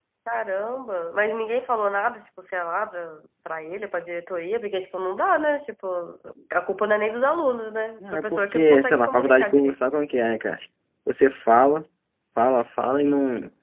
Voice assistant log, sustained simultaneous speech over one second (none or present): present